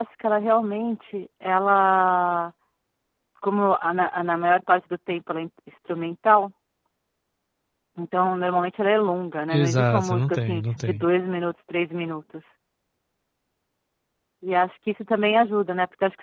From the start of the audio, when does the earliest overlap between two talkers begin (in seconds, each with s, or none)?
9.5 s